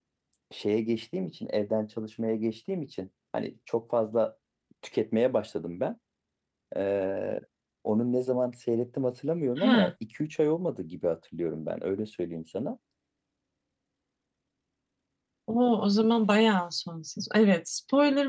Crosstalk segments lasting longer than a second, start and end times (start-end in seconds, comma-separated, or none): none